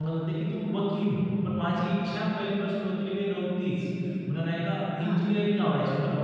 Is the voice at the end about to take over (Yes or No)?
No